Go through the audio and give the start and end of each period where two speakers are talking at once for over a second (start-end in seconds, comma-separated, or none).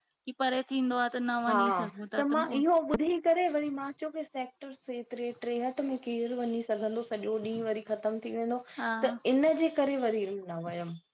none